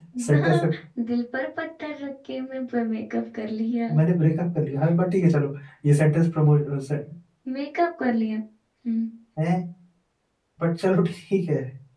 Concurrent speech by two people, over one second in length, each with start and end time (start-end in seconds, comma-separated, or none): none